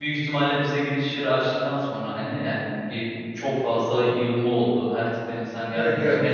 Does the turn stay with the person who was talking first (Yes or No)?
Yes